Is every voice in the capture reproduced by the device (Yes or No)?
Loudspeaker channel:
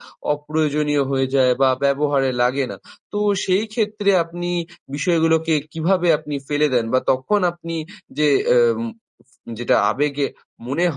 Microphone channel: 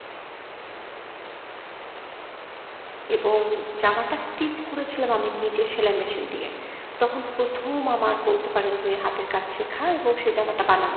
No